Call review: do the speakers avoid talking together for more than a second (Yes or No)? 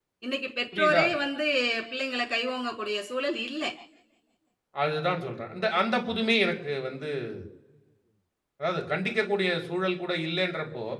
Yes